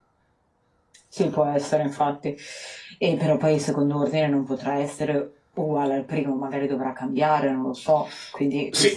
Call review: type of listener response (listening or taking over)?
taking over